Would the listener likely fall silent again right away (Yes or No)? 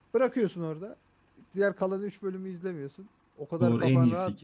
No